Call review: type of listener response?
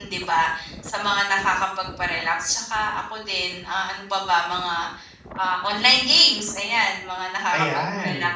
taking over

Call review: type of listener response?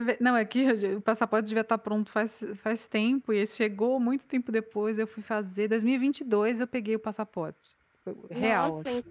taking over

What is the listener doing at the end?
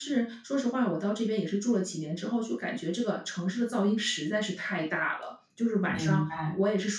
listening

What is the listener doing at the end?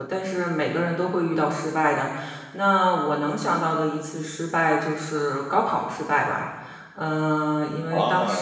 taking over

